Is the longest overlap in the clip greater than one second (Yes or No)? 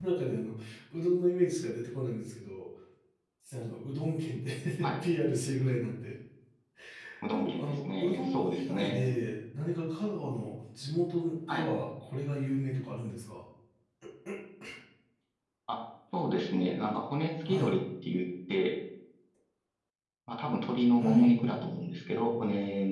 Yes